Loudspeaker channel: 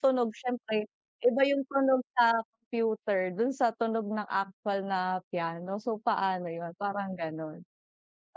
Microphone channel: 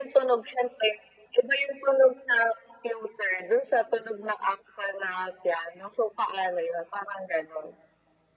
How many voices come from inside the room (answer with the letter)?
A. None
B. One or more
A